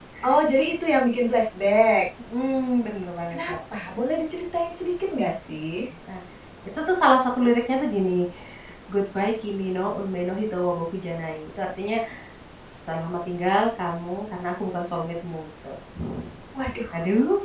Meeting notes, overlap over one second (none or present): none